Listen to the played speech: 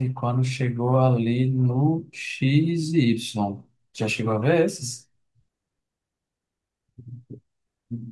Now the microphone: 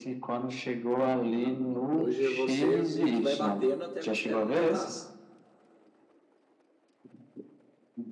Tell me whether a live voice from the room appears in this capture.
Yes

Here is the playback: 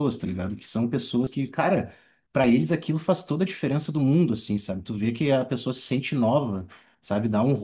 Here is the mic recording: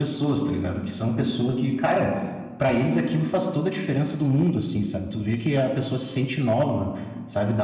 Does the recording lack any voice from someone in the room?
Yes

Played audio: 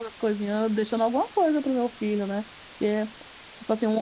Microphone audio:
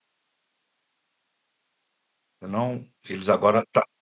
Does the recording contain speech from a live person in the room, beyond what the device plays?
Yes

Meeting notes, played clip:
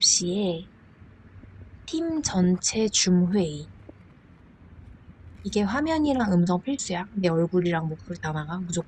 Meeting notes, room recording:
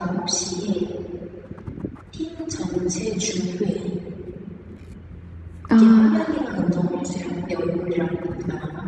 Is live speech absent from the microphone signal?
No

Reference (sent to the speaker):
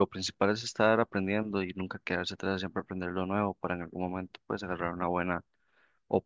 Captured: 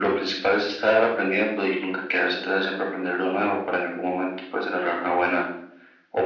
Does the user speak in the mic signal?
No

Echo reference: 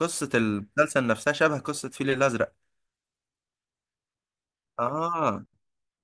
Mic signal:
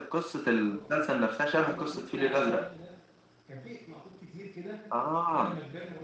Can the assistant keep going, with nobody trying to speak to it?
No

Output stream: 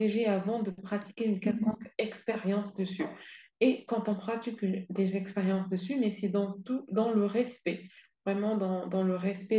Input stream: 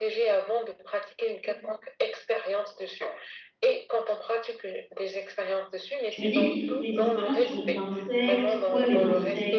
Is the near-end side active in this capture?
Yes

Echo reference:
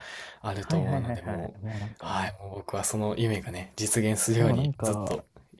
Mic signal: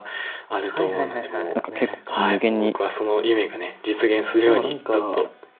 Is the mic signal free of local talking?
No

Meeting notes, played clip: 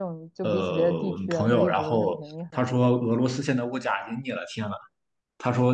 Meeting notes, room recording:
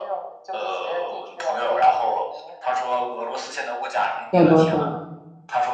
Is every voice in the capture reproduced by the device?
No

